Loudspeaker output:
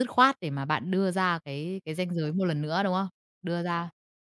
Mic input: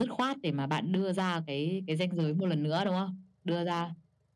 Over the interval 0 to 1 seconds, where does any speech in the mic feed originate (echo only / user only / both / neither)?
echo only